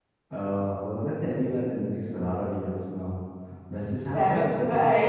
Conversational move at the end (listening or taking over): taking over